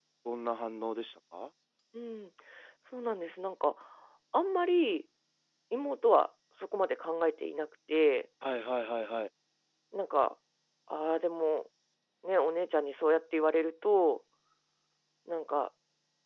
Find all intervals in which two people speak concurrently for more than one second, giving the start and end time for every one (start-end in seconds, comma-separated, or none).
none